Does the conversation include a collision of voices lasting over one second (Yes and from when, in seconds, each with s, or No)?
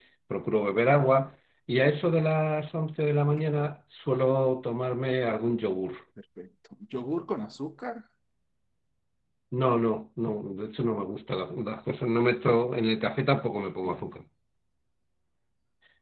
No